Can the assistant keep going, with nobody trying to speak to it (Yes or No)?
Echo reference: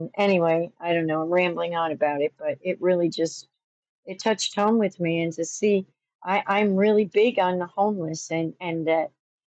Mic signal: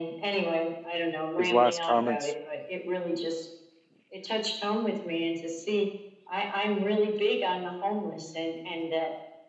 No